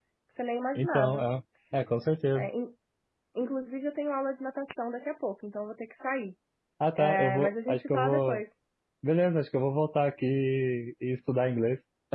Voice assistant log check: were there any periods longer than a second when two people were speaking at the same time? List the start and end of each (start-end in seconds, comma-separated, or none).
7.0-8.4